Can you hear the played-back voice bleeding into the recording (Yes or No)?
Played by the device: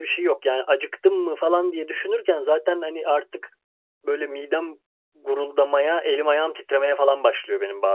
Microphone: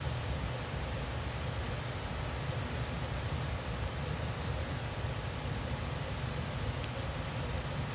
No